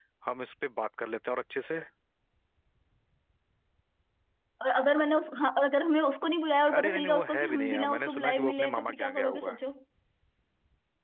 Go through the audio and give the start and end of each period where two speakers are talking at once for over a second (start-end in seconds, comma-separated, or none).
6.8-9.6